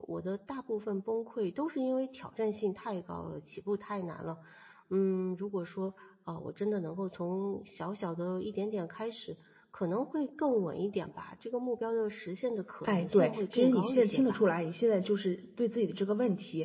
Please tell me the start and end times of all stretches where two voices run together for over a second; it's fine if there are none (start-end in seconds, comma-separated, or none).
12.8-14.4